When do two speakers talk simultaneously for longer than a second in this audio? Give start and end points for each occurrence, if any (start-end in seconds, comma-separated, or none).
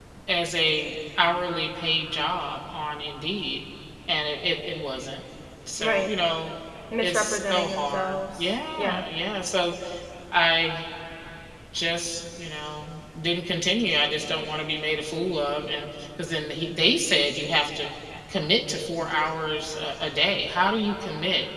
7.0-9.0